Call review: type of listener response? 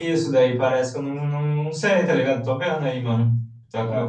listening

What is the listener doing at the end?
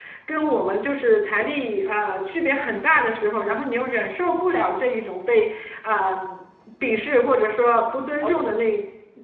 listening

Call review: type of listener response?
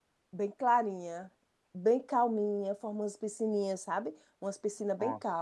listening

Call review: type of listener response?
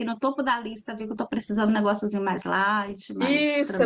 taking over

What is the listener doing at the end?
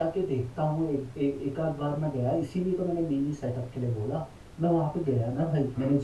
listening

